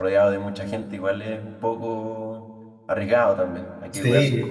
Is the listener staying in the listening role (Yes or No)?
No